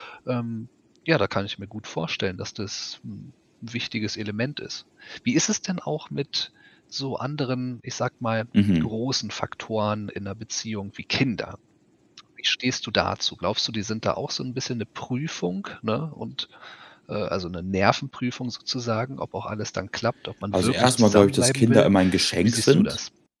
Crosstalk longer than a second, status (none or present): present